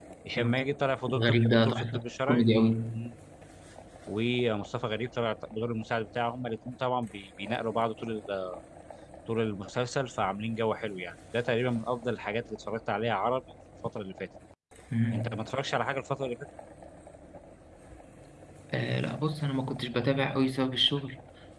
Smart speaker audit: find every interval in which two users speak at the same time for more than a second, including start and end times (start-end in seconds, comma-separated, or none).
1.2-2.4